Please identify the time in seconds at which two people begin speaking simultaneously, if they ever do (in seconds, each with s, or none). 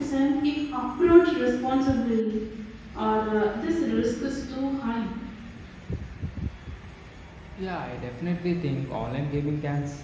none